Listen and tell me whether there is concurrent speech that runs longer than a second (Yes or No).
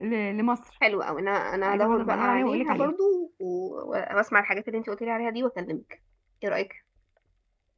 Yes